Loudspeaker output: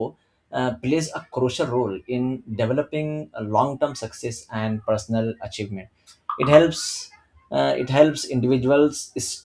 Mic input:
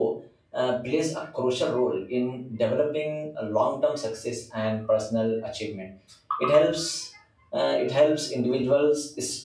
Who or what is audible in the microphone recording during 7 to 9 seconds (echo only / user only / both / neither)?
echo only